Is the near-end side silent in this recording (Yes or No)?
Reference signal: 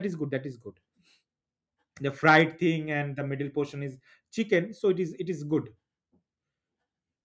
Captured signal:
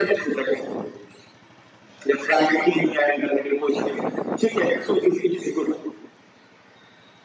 Yes